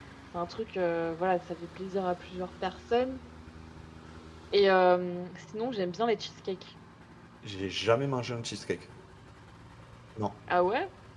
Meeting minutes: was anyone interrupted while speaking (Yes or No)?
No